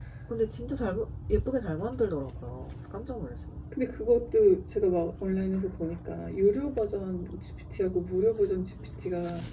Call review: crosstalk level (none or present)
none